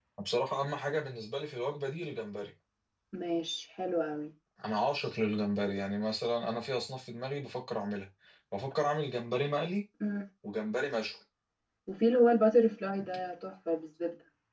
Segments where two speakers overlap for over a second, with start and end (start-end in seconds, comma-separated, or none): none